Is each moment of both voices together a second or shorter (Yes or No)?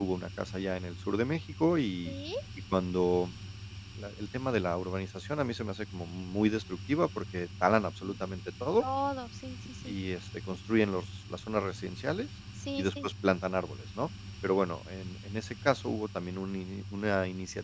Yes